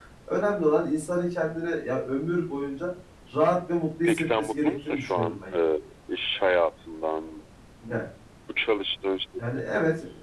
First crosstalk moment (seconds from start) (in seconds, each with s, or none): 4.0 s